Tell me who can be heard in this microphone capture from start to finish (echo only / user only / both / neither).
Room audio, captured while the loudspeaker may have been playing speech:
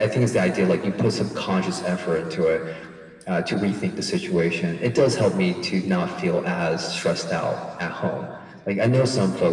echo only